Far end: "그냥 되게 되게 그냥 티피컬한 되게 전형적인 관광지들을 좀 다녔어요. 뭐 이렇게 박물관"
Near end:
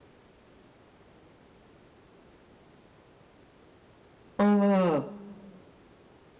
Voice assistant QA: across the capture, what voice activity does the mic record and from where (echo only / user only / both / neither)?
user only